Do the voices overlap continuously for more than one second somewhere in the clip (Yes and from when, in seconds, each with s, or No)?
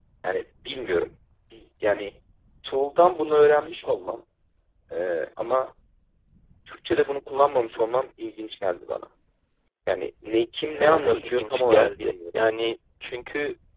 Yes, from 10.8 s